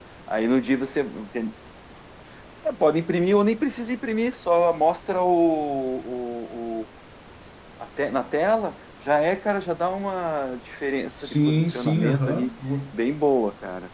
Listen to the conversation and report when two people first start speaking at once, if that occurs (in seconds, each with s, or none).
11.2 s